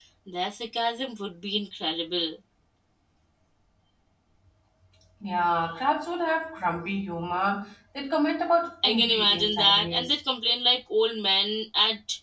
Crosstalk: present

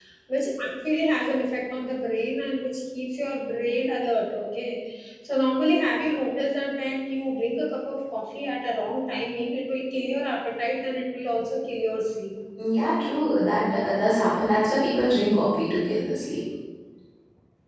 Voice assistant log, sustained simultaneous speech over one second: none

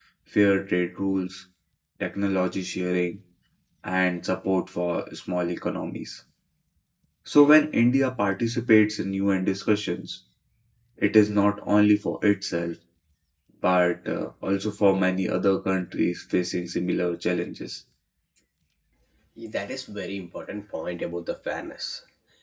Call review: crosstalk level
none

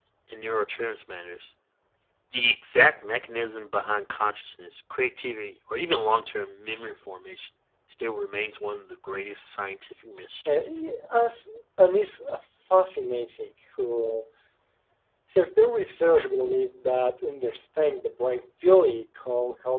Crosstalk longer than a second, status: none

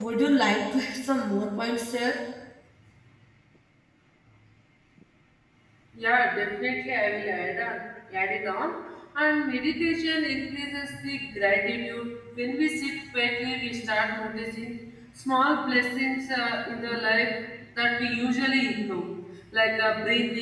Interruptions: none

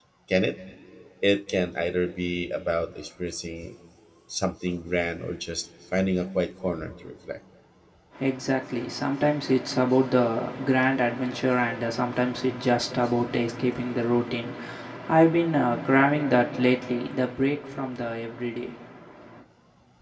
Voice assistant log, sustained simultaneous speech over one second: none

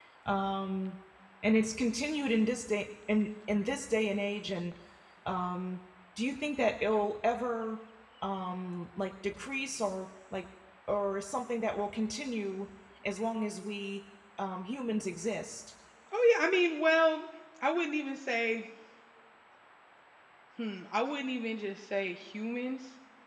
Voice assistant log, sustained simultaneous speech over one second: none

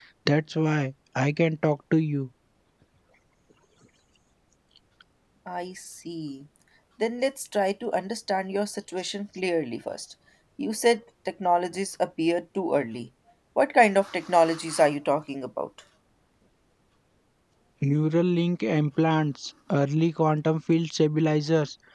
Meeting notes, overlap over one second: none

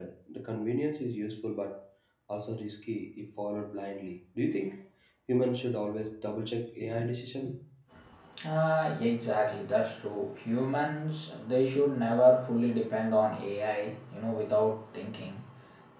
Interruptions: none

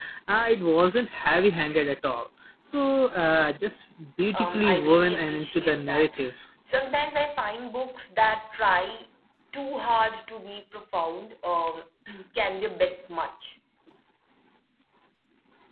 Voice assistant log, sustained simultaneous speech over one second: present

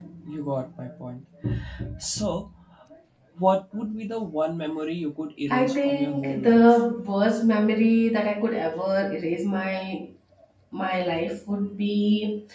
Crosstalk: present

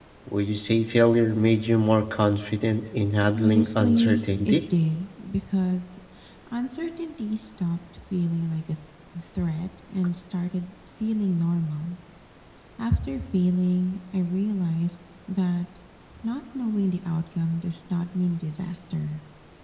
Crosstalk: present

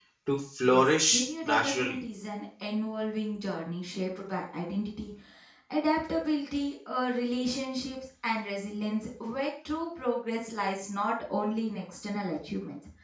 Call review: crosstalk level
present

